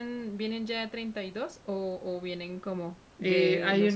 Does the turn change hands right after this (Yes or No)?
Yes